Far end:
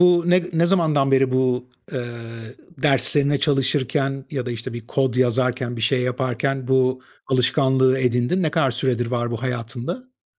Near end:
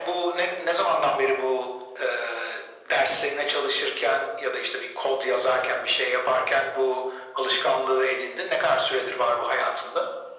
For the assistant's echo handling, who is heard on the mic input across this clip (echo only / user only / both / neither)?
echo only